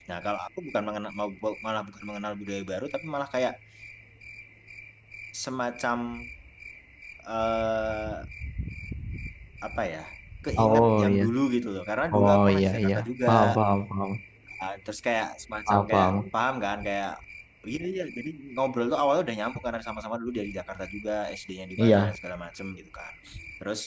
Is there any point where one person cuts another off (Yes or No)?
Yes